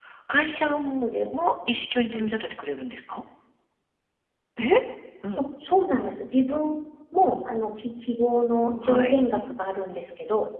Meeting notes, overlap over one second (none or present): none